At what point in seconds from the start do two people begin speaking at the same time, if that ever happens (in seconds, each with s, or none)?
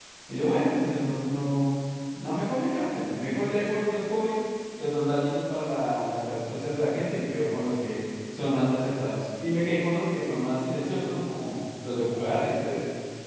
none